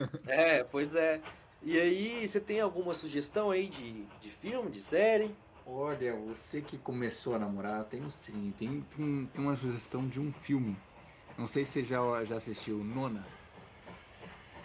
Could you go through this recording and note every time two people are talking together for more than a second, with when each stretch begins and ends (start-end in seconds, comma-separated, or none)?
none